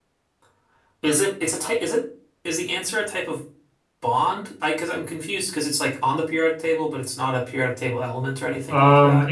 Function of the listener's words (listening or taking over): taking over